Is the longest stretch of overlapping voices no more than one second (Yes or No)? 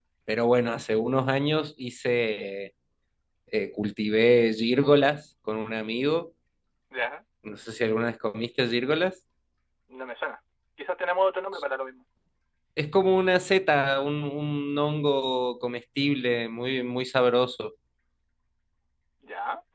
Yes